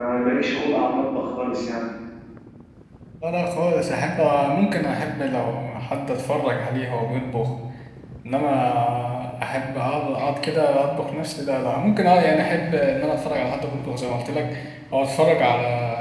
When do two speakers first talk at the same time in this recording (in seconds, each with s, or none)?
none